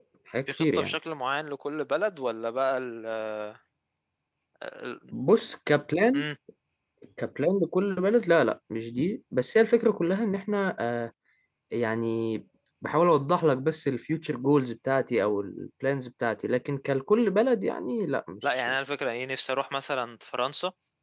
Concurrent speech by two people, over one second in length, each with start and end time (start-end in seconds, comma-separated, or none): none